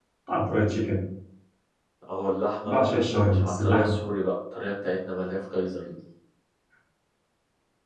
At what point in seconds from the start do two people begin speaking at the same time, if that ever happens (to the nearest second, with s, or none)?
3 s